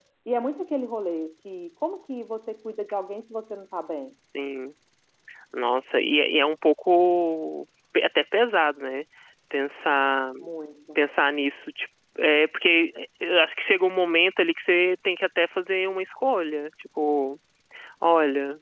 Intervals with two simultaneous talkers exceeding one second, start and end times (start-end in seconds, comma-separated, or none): none